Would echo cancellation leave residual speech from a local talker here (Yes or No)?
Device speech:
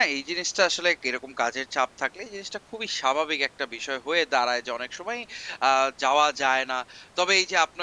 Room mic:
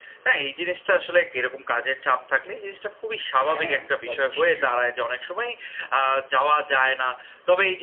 Yes